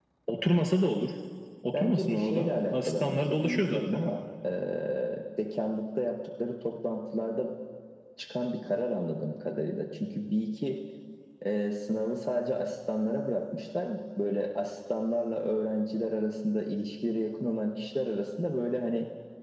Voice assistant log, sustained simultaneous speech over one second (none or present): present